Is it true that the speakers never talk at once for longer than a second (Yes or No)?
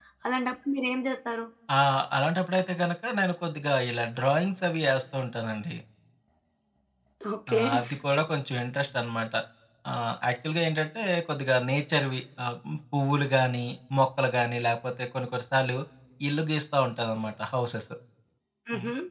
Yes